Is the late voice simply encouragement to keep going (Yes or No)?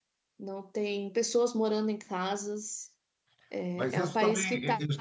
No